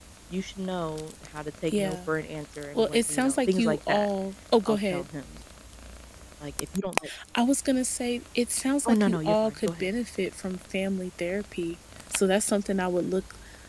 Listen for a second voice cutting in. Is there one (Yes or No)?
Yes